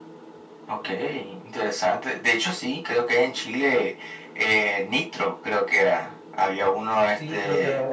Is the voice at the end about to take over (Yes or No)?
Yes